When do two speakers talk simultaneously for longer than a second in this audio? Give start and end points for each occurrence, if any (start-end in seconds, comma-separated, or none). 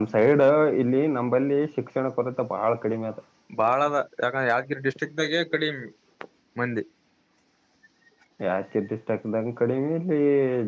none